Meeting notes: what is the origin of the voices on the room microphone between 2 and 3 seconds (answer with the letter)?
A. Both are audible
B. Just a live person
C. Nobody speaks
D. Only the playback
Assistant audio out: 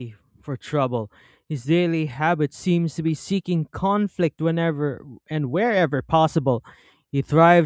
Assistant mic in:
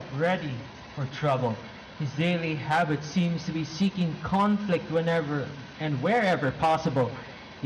D